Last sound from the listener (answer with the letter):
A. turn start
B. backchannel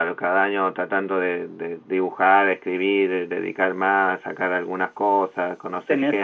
A